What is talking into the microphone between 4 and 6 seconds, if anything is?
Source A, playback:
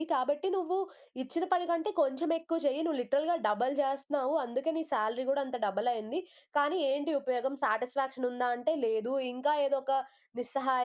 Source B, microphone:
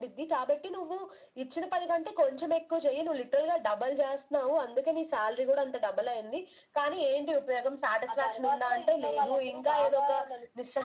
echo only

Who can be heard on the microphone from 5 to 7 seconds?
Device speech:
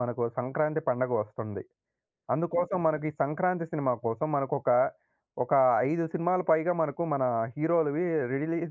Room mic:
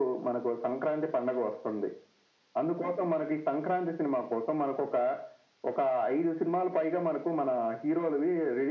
echo only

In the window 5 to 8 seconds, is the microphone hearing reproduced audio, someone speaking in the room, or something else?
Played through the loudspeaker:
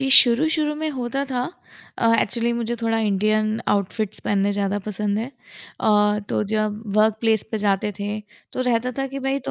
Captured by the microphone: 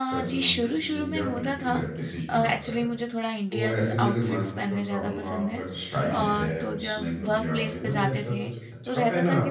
both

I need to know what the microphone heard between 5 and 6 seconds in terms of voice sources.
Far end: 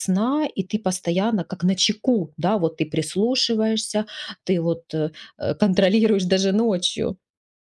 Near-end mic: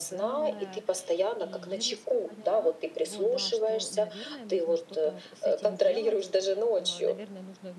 both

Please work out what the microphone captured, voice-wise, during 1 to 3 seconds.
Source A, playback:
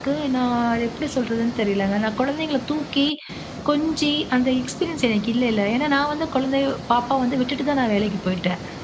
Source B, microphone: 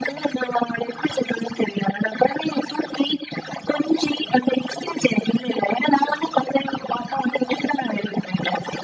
echo only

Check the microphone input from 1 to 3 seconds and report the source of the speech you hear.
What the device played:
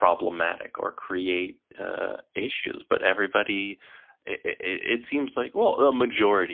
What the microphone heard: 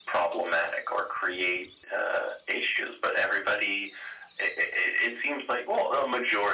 echo only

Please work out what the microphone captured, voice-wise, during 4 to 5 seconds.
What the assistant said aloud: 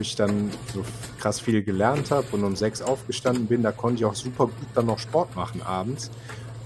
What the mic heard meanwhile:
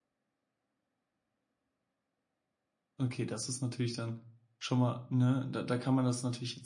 user only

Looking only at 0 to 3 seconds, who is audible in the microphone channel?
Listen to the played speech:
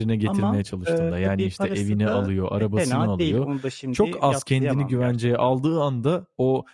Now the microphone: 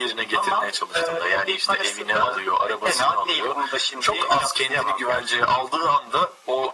echo only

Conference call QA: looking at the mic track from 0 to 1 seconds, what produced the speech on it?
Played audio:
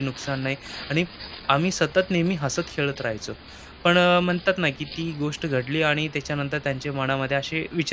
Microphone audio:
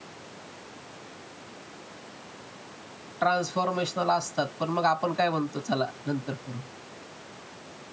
neither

